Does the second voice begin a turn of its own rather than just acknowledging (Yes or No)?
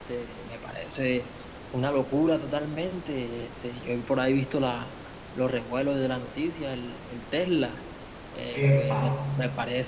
No